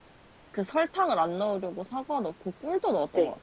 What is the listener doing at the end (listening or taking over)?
taking over